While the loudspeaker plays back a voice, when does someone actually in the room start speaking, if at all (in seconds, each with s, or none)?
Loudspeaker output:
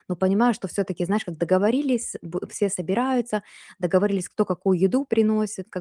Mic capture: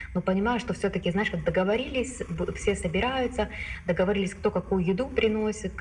none